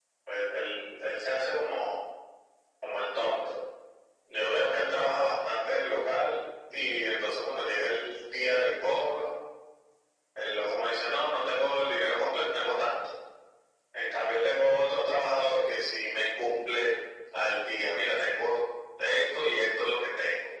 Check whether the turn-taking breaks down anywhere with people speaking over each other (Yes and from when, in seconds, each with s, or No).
No